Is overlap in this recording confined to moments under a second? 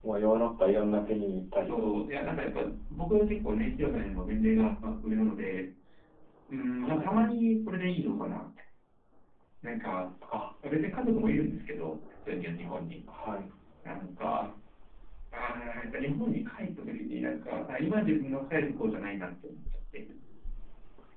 Yes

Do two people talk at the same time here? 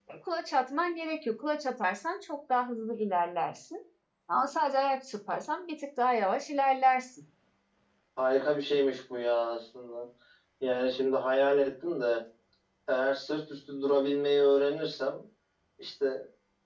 No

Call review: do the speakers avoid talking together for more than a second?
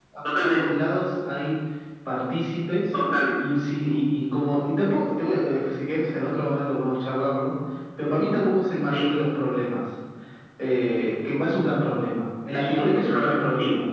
No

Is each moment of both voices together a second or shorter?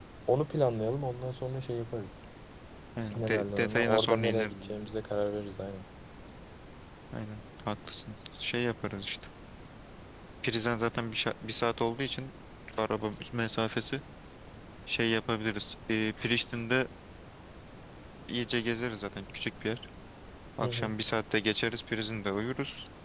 No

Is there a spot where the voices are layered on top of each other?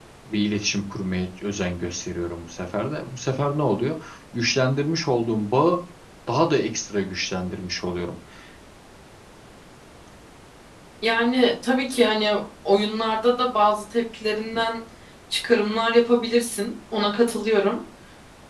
No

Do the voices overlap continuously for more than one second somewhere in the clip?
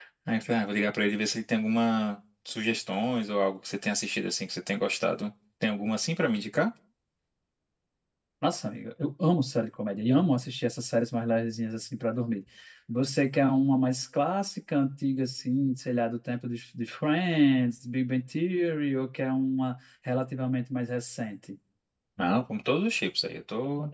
No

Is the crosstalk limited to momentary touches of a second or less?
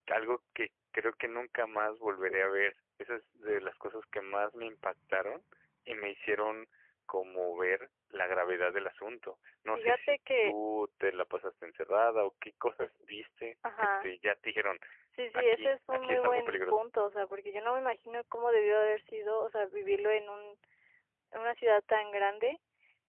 No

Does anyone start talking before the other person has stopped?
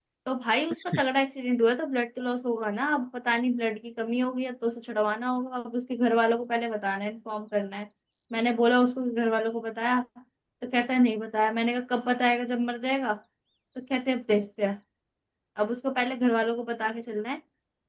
No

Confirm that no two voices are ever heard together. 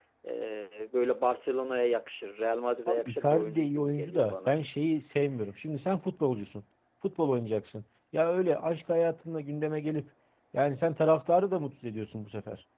No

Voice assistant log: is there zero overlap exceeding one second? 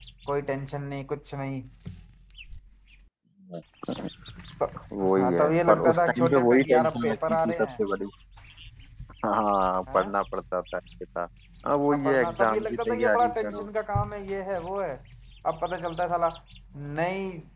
No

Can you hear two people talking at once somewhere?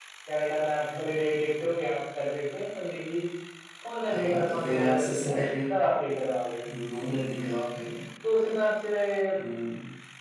Yes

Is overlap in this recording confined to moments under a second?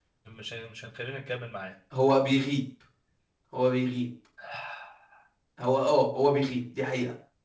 Yes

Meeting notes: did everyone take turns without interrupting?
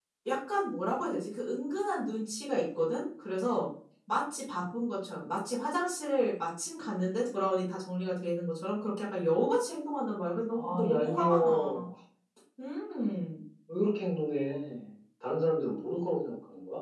No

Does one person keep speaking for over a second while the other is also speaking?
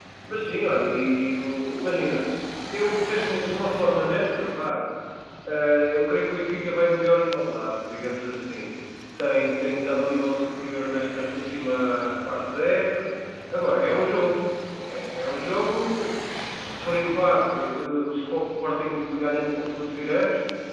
No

